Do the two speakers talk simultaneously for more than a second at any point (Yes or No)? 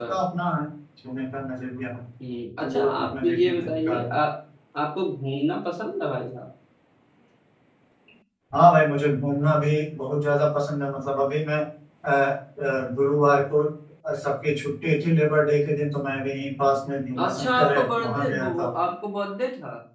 Yes